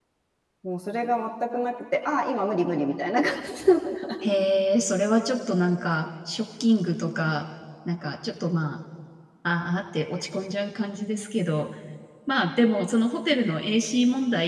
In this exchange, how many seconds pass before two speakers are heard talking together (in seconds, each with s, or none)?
none